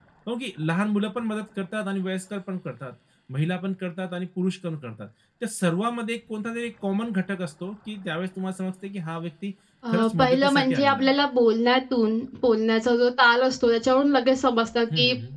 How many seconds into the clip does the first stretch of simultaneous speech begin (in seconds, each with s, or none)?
9.9 s